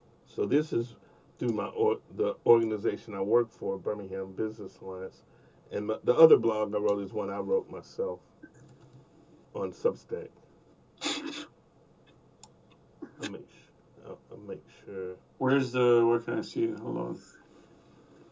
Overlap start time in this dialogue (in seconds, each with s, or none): none